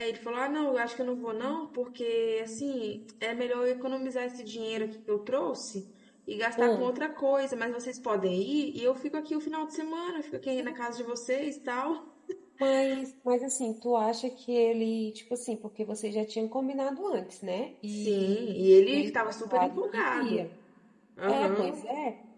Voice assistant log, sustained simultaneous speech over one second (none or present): present